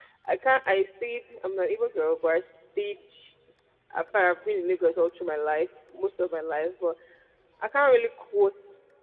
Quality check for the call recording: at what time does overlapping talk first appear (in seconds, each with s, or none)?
none